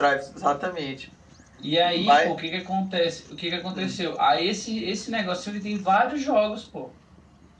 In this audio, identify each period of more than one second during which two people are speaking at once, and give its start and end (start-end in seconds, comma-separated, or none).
none